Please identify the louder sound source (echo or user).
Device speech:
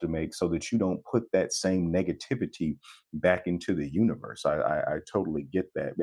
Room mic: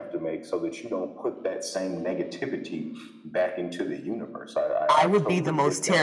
user